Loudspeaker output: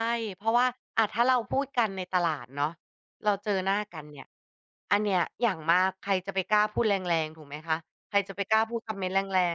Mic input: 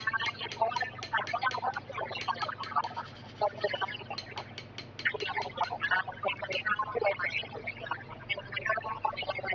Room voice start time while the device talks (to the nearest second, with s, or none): none